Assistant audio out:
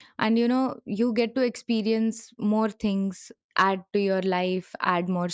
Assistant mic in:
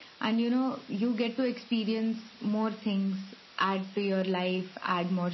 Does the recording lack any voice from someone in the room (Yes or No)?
Yes